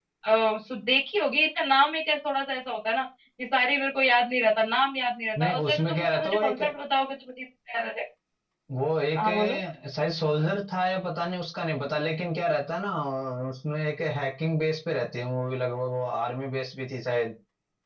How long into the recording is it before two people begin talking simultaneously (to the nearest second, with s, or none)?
5 s